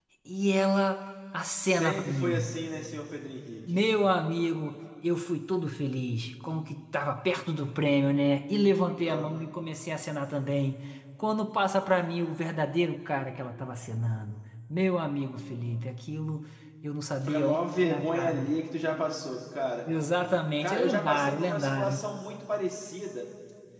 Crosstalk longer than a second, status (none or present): present